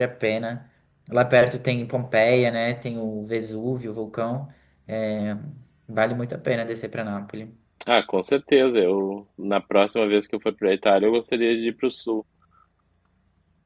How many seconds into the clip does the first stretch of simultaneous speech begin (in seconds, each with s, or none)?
none